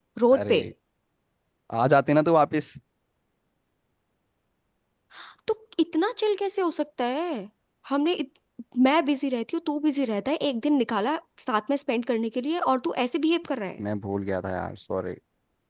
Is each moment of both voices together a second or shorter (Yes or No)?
Yes